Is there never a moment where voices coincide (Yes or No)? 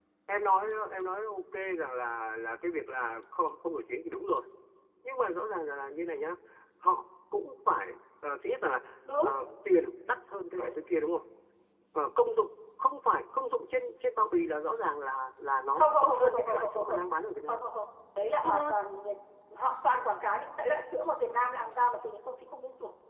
No